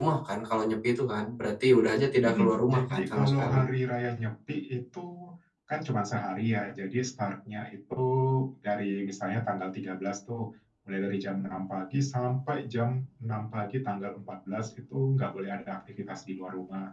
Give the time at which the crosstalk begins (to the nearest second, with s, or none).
2 s